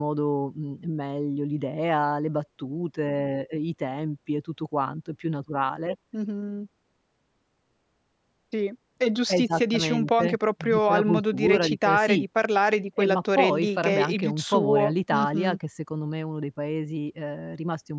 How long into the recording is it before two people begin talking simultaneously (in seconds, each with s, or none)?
9.3 s